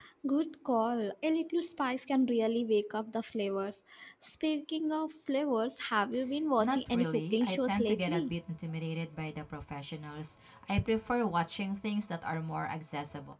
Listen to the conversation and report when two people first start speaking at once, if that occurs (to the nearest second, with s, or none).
7 s